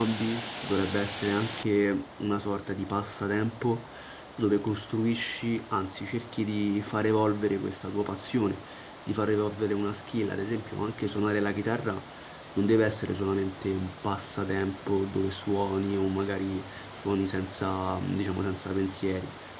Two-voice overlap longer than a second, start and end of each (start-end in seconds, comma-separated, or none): none